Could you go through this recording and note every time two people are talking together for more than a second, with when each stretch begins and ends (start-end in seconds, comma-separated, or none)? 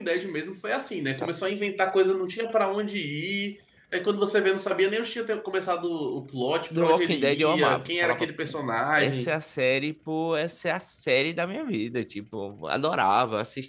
6.7-8.6